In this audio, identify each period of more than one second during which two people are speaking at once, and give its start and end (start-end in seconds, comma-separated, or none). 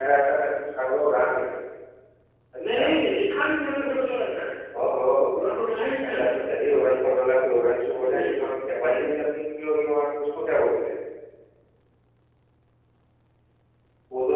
none